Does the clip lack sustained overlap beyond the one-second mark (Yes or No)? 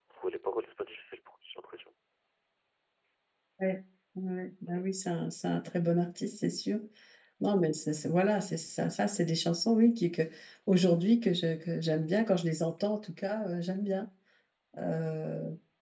Yes